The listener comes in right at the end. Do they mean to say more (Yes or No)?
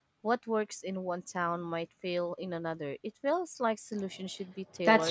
Yes